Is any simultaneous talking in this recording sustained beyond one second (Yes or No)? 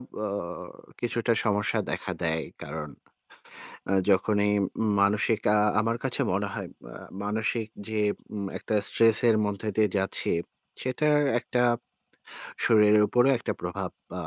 No